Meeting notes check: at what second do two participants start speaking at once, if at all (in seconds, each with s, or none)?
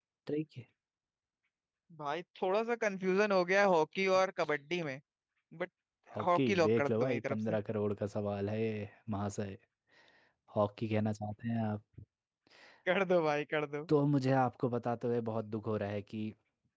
6.3 s